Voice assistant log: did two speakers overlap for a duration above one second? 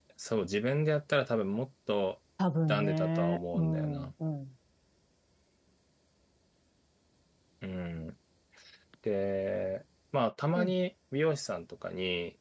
Yes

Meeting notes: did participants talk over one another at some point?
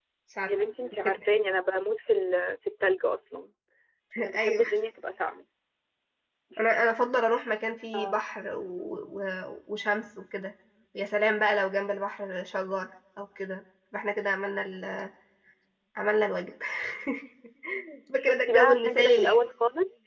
Yes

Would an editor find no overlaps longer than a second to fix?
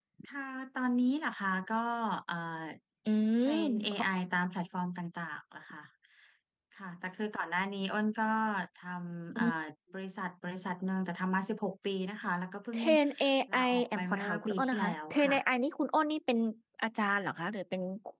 No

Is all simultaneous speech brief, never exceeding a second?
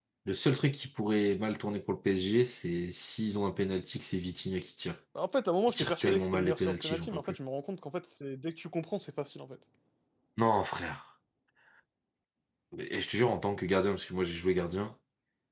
No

